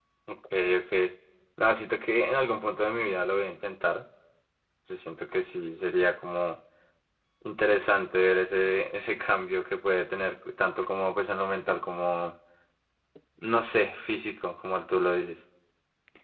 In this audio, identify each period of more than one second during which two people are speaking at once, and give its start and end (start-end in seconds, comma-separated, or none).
none